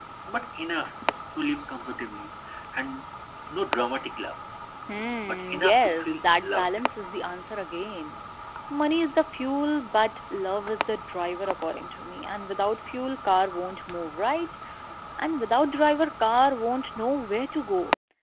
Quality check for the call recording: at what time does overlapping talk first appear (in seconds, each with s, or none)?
5.2 s